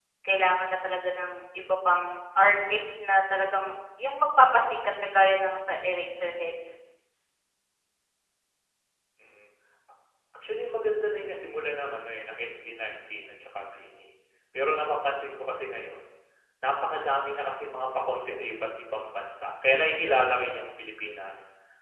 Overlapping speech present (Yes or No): No